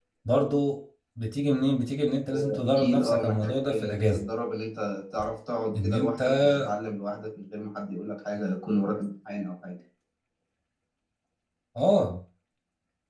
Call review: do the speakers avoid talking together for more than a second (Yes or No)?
No